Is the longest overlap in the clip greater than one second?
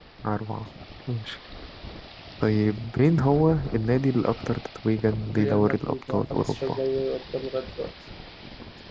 Yes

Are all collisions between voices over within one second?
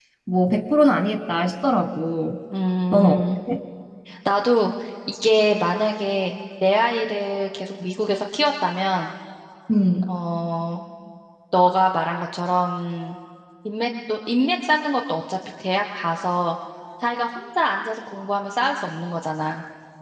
Yes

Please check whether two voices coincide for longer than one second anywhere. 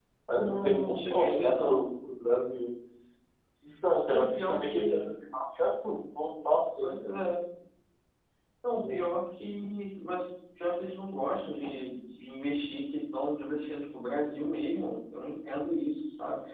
Yes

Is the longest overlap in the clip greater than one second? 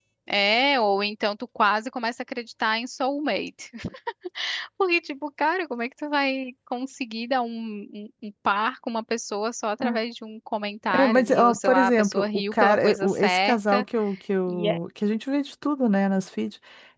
Yes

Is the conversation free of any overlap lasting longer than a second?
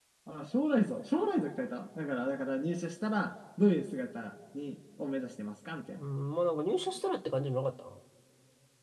Yes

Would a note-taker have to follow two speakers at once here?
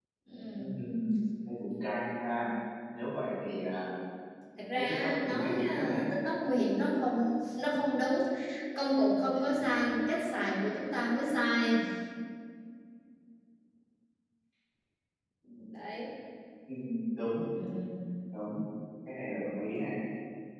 Yes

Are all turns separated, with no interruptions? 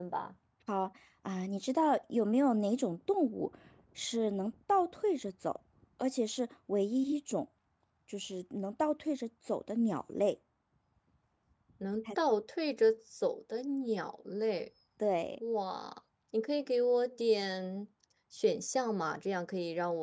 Yes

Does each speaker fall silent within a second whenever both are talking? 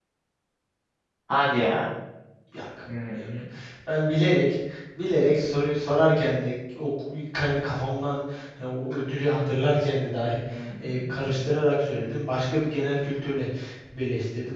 Yes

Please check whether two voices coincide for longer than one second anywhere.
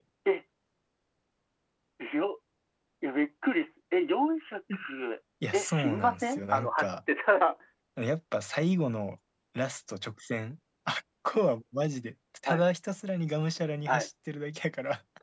Yes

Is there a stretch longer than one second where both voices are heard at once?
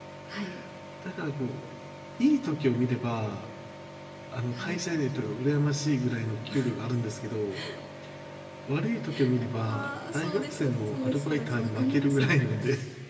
Yes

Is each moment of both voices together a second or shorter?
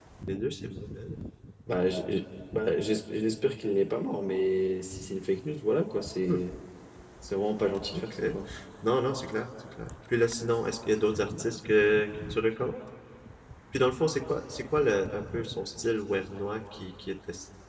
Yes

